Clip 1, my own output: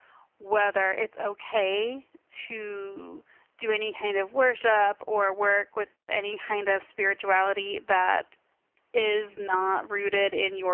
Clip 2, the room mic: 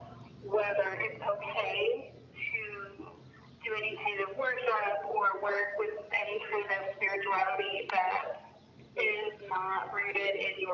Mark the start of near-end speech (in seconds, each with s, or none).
none